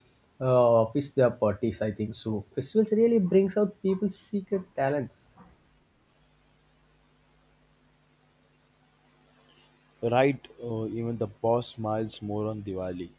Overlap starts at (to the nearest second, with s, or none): none